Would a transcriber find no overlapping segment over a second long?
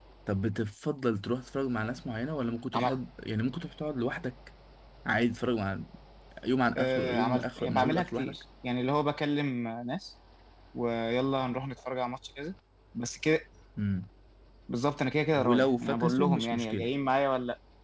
No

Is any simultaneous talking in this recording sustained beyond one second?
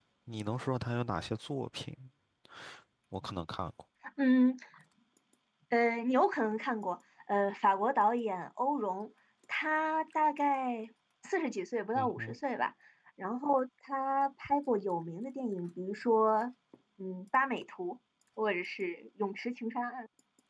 No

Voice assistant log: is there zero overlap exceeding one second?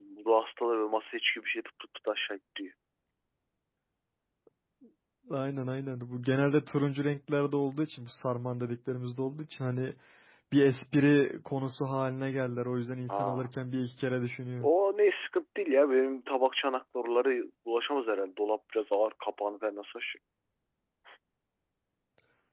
Yes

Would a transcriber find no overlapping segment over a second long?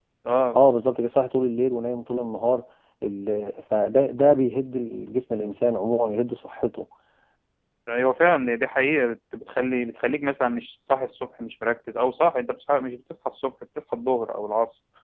Yes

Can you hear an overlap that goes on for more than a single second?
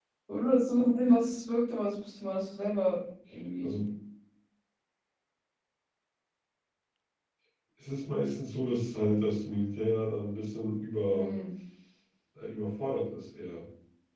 No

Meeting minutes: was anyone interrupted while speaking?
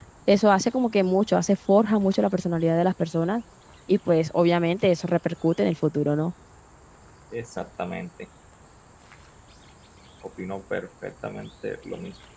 No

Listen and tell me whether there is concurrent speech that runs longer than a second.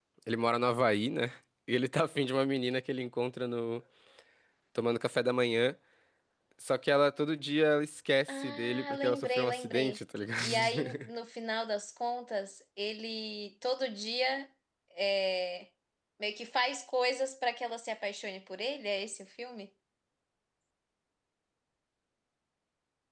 Yes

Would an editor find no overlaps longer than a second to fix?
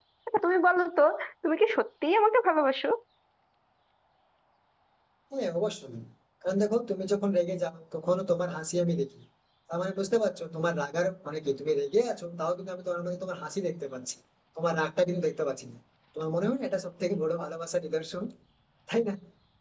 Yes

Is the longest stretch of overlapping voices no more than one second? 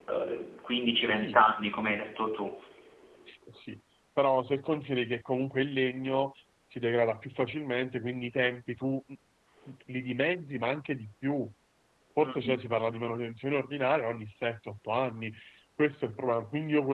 Yes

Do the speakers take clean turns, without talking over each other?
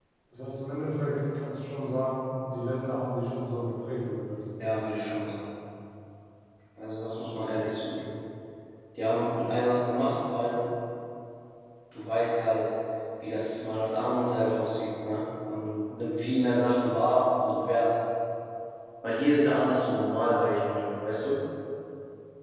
Yes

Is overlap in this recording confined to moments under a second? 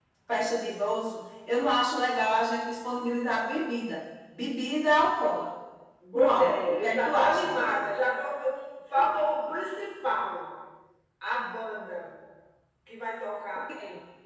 No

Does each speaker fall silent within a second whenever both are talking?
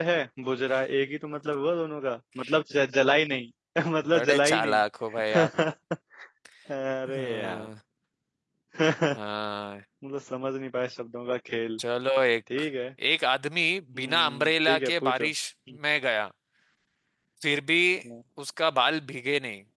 No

